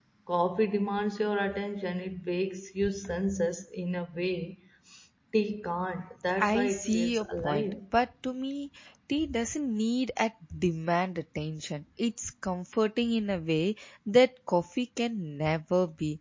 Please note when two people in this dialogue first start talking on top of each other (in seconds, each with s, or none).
6.4 s